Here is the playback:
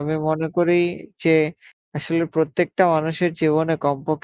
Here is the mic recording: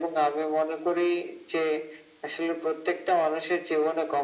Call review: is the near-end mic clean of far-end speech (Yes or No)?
No